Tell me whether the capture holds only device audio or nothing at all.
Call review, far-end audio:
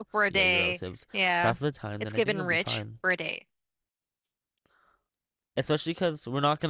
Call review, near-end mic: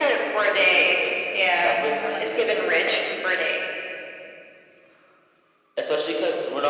No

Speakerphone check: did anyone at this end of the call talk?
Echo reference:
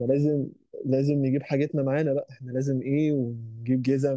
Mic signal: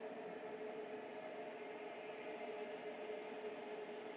No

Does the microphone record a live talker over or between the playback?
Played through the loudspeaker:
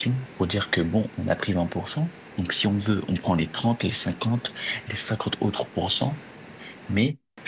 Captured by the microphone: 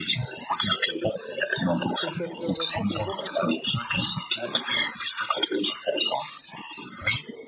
Yes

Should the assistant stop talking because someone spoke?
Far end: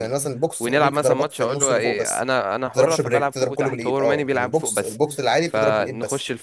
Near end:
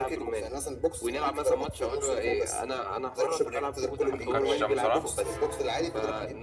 Yes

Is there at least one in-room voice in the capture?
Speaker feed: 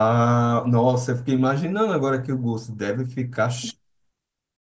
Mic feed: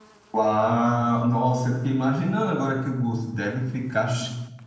No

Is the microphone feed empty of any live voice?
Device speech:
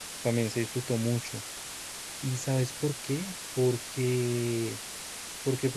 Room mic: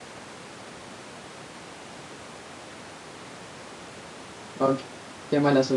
No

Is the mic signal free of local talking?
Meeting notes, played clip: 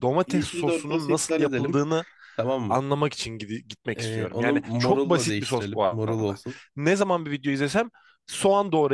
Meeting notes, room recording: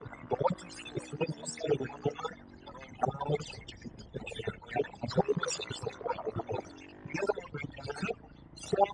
Yes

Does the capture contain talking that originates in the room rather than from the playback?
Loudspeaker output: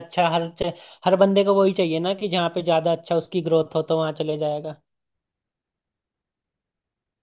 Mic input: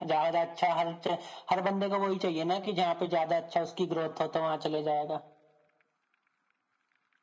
No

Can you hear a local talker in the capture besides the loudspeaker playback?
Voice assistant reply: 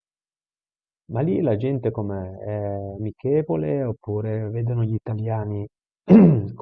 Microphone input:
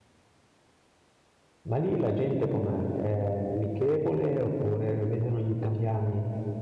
No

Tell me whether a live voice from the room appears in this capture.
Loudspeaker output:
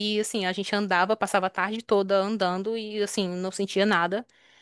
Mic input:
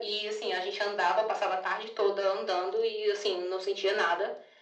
No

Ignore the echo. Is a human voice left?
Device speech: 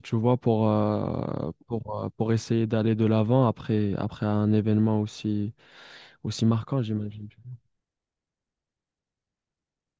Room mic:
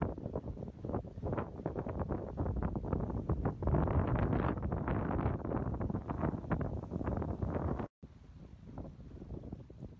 No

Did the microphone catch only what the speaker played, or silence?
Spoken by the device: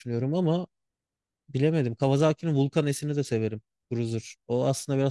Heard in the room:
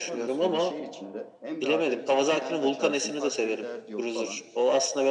No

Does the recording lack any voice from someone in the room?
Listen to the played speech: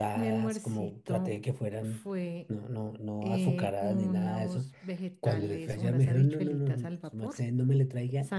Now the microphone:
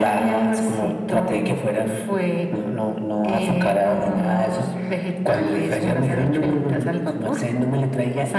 Yes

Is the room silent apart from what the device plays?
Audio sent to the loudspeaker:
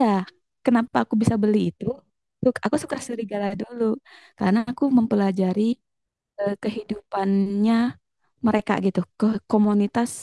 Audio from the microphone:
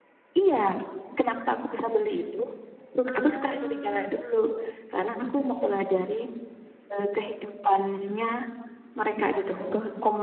No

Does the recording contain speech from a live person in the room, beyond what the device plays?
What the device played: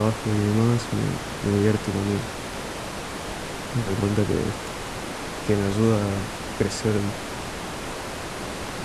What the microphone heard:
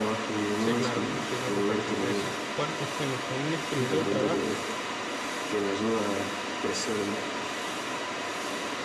Yes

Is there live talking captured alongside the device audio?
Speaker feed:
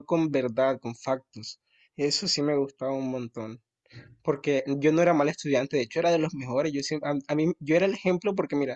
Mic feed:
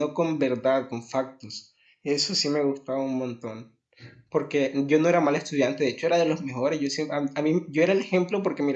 No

